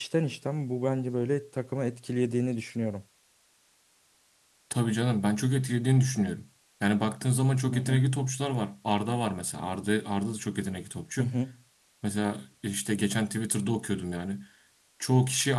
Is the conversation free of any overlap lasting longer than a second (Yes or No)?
Yes